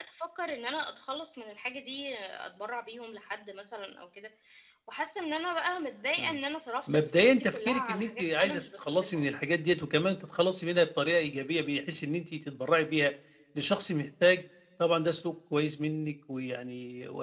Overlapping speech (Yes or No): Yes